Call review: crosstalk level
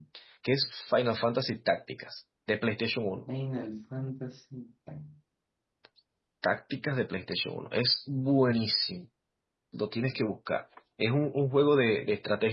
none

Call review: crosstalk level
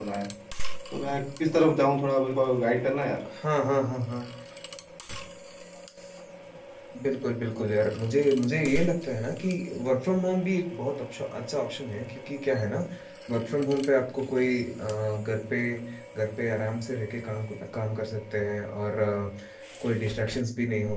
none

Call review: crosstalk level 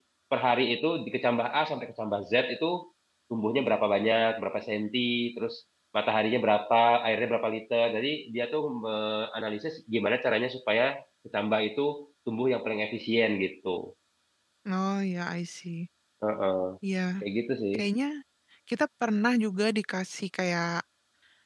none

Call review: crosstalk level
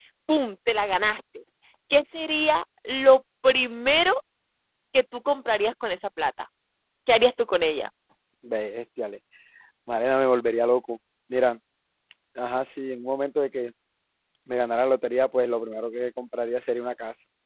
none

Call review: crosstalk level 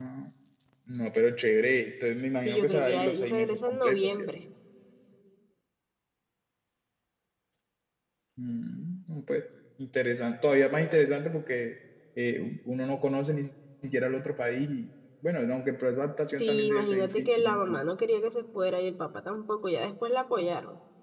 present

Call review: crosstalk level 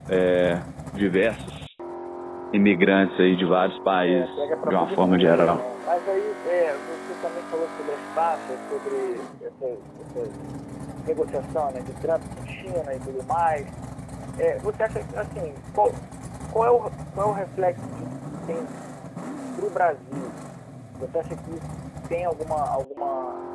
present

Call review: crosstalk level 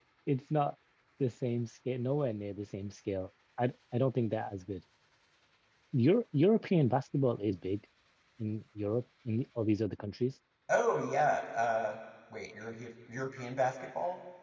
none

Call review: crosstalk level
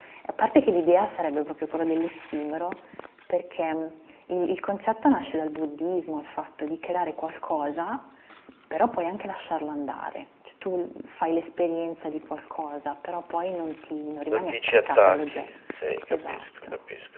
present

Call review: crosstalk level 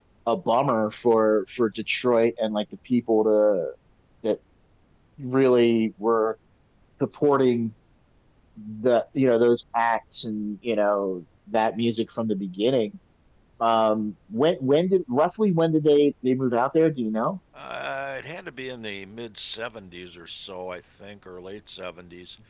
none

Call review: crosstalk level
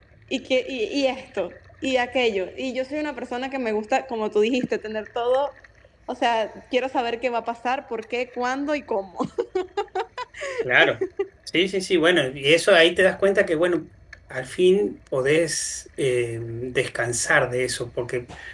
none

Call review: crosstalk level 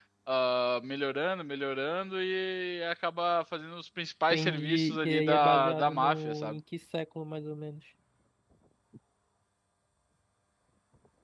present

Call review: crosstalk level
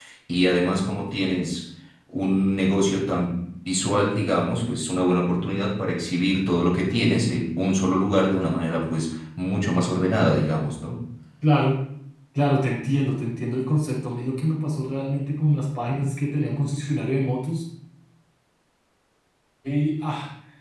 none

